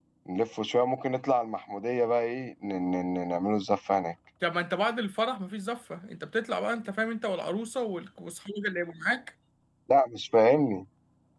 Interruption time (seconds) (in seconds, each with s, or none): none